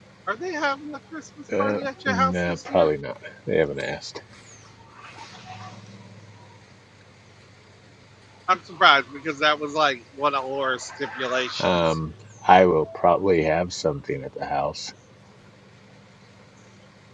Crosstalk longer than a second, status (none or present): present